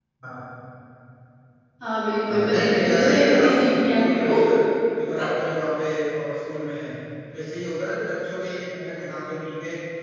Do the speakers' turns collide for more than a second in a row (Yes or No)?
Yes